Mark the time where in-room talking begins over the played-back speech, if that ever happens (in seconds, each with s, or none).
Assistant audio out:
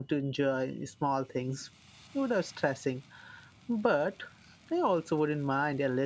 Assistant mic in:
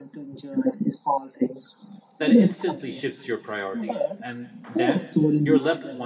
2.2 s